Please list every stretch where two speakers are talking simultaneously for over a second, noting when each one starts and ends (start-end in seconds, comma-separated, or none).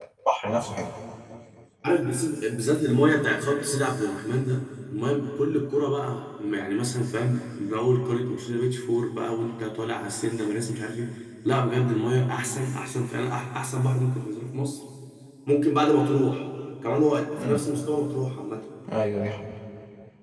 none